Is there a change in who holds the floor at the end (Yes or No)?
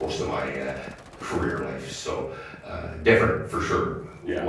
No